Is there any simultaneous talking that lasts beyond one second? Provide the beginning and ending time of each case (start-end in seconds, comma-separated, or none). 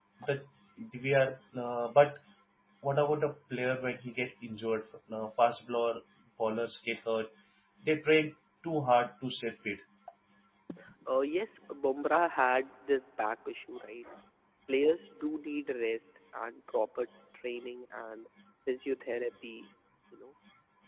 none